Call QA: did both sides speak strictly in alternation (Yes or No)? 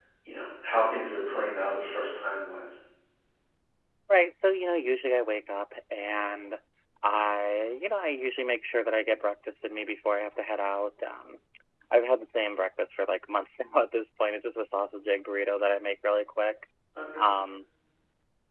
Yes